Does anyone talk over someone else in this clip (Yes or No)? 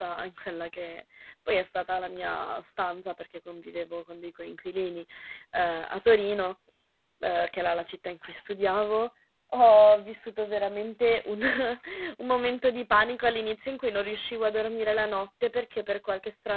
No